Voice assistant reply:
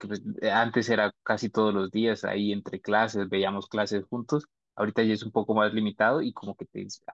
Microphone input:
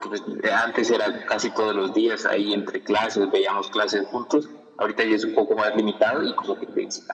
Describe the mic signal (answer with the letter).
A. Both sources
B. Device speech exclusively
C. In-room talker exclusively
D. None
B